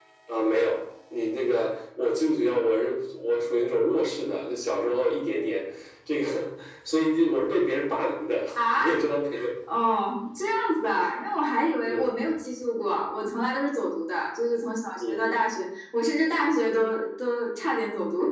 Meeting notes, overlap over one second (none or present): none